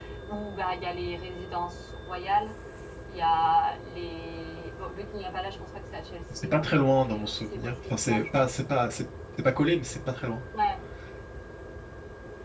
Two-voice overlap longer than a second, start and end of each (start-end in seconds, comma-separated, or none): 6.4-8.5